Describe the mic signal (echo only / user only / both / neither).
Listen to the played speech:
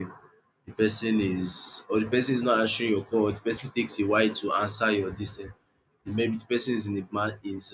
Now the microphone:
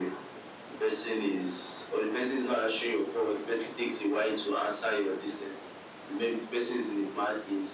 echo only